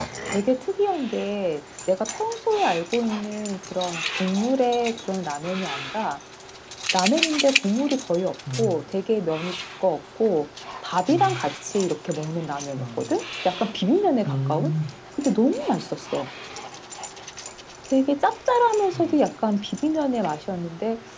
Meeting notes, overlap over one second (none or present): none